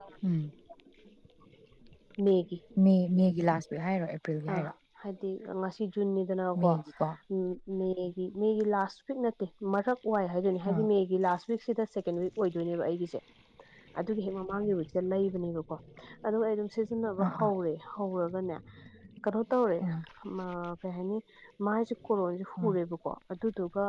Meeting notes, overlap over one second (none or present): none